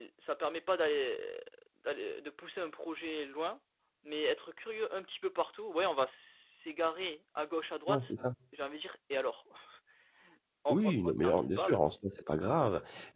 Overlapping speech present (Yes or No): Yes